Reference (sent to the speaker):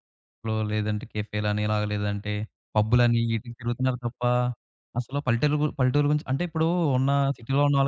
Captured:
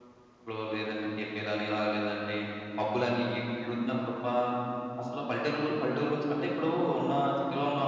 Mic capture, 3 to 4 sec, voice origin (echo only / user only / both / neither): echo only